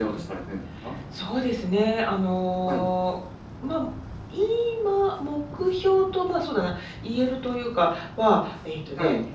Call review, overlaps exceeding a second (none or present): none